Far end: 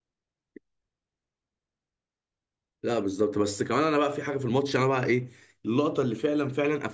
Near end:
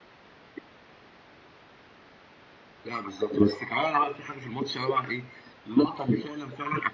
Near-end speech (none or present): none